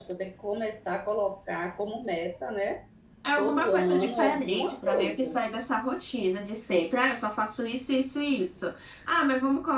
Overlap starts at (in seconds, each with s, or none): 3.4 s